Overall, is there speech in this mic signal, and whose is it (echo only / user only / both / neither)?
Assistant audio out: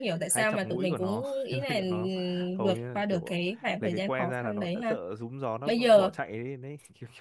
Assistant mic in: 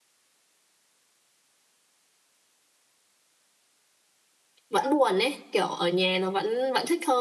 user only